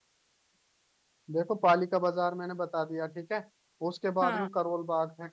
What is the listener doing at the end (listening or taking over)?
listening